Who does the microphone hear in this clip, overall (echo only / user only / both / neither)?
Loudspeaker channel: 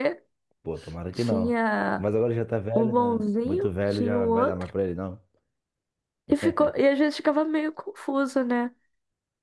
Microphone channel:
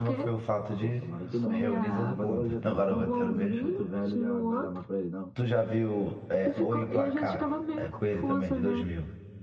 both